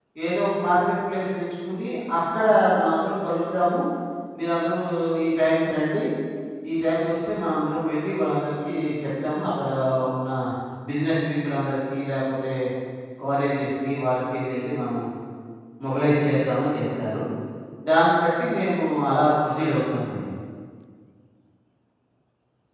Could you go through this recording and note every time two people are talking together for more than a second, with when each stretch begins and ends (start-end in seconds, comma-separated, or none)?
none